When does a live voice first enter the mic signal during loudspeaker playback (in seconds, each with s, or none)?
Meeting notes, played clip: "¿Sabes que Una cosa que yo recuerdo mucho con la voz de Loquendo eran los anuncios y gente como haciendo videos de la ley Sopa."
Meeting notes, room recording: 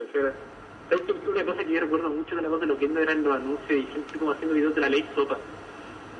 none